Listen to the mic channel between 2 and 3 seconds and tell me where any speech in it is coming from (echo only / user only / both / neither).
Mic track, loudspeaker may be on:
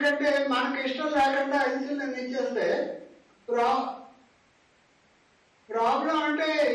echo only